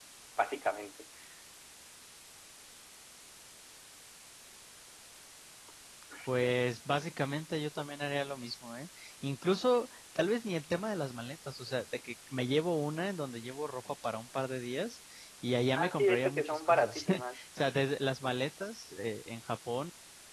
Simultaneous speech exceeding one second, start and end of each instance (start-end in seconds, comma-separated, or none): 15.8-17.4